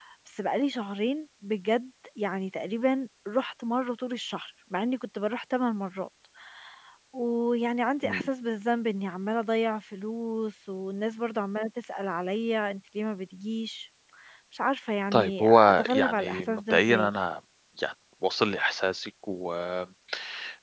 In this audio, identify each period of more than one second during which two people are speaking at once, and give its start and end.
15.1-17.1

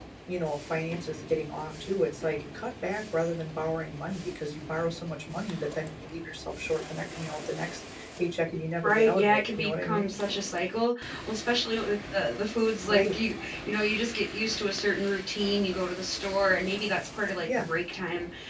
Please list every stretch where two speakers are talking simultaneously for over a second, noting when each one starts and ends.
8.8-10.1

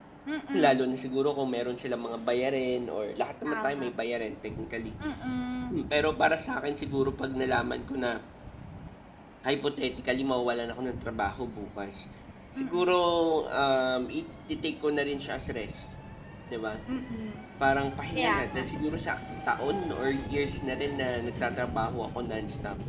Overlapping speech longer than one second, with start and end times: none

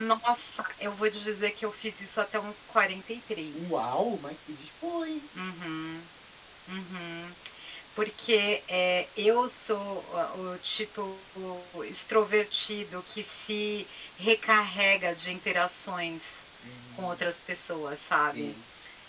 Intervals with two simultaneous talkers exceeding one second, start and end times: none

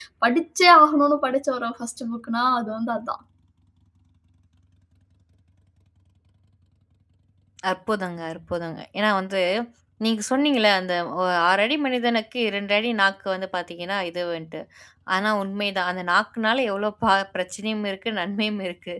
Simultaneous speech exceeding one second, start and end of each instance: none

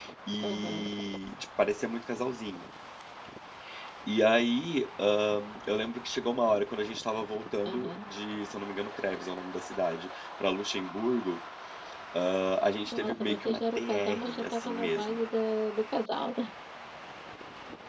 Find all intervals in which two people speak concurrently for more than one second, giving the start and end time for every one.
12.9-15.2

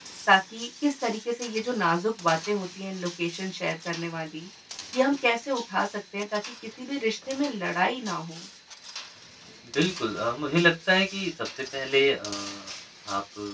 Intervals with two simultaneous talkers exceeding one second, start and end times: none

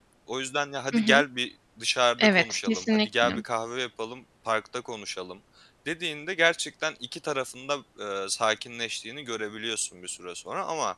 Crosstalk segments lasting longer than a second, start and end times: 2.2-3.4

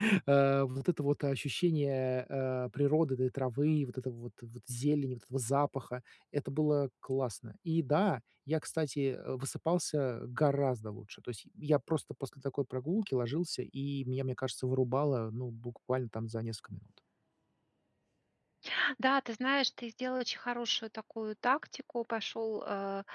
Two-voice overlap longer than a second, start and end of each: none

